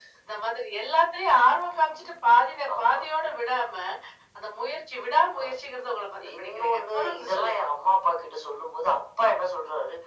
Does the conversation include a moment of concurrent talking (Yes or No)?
Yes